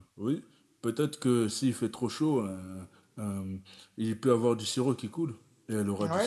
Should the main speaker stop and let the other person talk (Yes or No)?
Yes